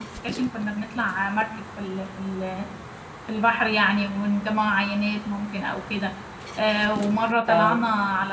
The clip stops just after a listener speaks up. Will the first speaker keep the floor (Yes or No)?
Yes